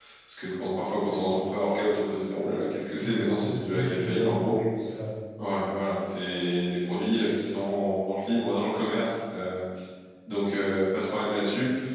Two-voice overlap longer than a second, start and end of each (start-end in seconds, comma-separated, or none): 3.0-4.5